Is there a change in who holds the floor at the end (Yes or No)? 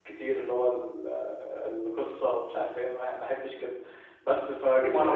No